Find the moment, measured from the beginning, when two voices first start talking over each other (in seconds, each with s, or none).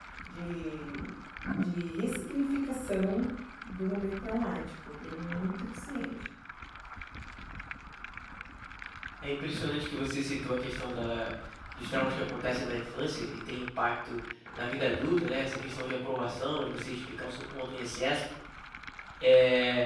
none